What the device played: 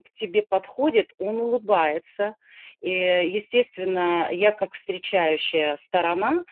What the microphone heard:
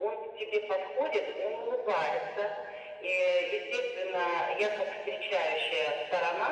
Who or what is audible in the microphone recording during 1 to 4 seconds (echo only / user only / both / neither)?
echo only